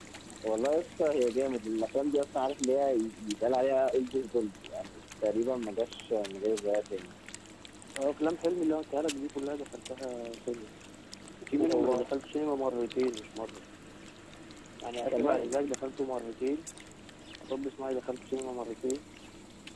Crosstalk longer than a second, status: none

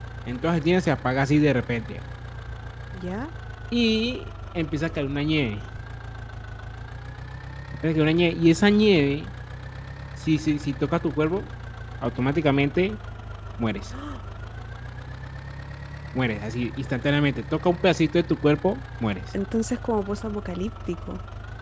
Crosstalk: none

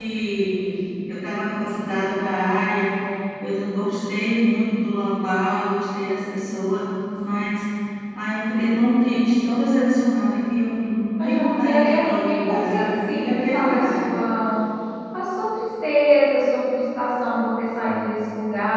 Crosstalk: present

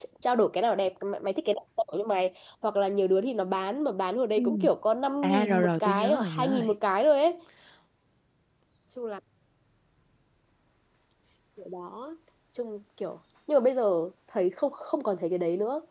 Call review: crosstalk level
present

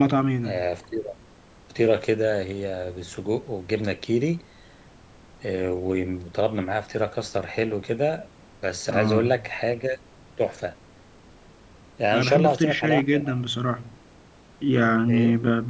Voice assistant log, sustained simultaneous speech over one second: present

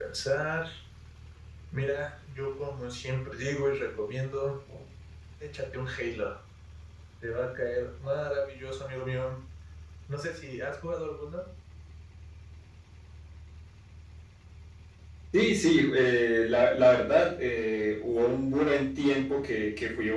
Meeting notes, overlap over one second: none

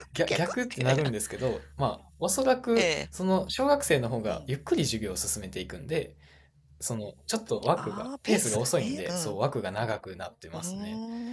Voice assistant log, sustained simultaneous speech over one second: present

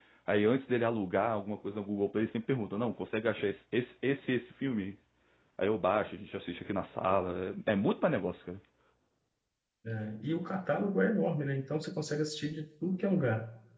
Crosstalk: none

